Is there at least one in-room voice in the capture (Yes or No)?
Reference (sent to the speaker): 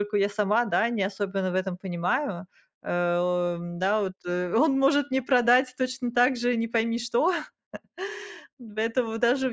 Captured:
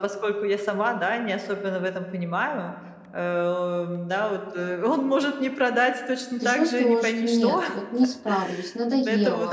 Yes